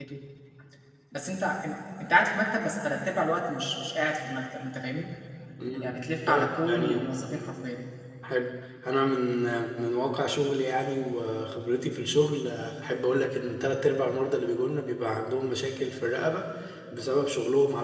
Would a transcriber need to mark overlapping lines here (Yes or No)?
Yes